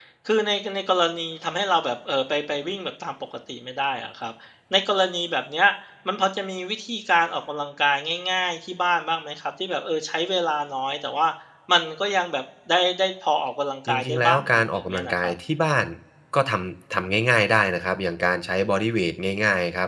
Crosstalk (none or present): present